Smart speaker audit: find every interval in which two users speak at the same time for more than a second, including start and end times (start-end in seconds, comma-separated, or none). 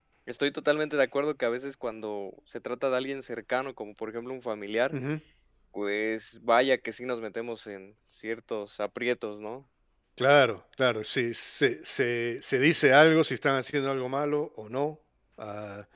none